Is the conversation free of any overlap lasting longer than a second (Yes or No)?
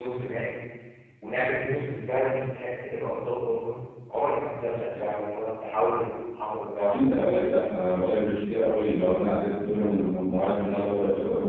Yes